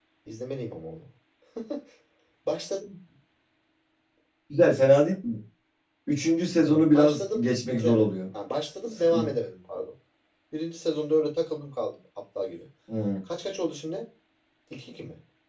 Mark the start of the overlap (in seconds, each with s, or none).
6.6 s